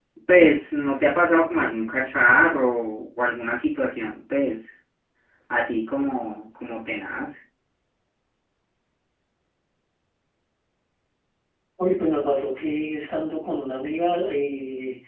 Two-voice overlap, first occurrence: none

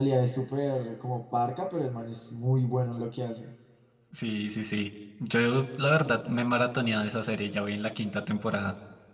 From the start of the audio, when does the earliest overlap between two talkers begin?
none

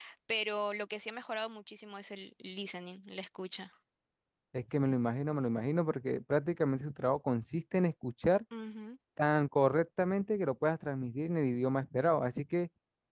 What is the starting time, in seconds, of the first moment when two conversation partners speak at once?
none

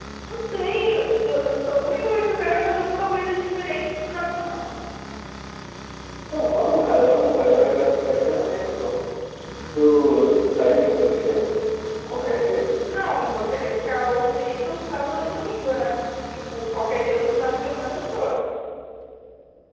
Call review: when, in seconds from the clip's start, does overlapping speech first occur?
none

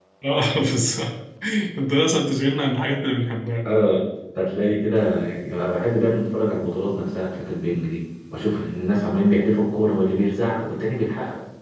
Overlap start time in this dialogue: none

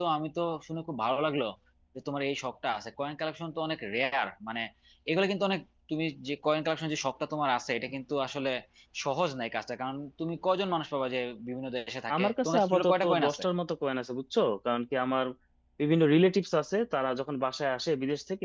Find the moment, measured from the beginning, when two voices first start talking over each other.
12 s

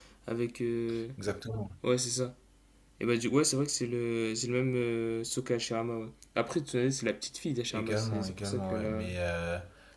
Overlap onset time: 8 s

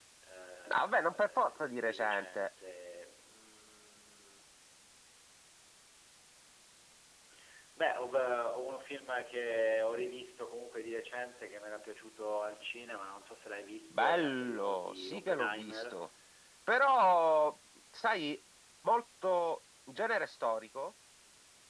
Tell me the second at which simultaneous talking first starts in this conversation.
1 s

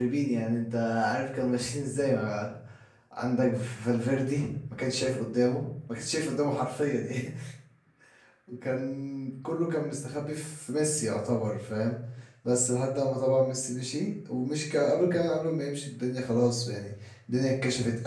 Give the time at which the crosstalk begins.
none

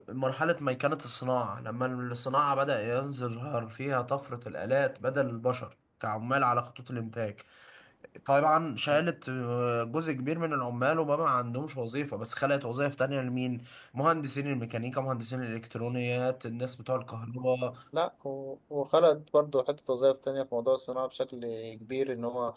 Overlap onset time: none

